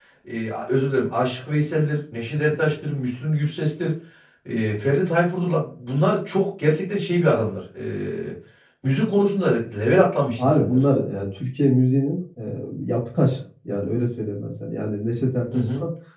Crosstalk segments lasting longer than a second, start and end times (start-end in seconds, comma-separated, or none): none